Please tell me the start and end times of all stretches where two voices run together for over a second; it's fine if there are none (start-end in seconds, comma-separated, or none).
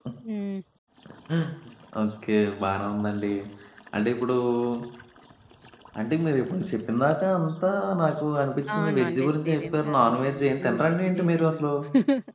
8.8-11.6